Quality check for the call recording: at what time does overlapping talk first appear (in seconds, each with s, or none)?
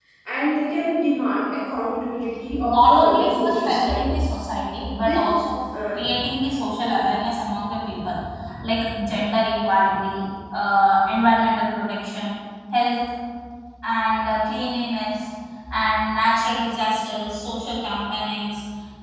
2.5 s